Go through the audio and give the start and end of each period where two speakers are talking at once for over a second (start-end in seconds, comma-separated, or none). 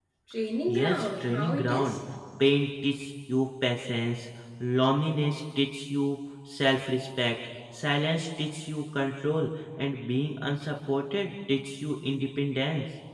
0.7-2.0